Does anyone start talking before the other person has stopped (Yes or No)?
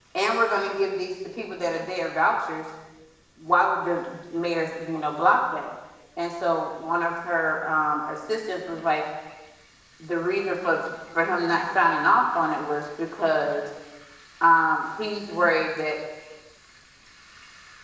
No